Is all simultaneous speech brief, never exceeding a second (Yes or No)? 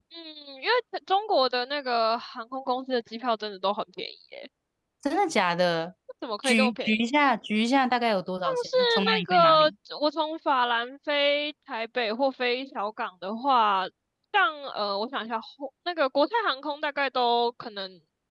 No